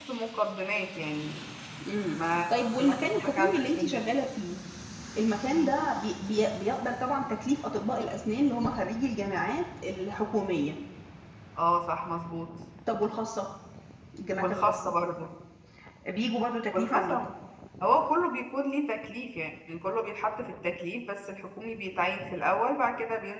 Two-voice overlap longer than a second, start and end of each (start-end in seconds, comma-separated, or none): 2.1-4.0